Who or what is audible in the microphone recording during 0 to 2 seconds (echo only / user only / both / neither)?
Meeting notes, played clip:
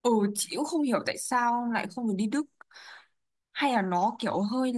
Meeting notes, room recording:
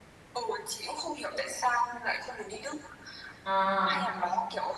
echo only